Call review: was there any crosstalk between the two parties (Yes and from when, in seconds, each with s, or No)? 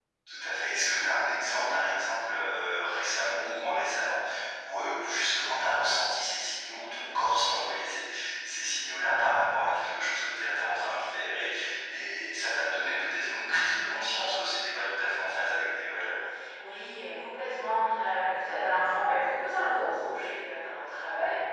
No